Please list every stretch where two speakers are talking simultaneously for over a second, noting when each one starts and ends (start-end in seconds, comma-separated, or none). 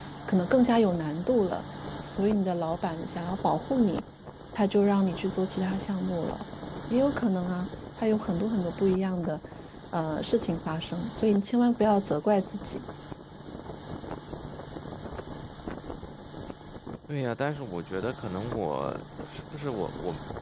none